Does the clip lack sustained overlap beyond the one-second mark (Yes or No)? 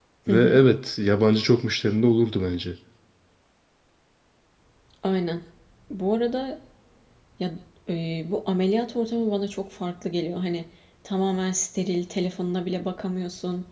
Yes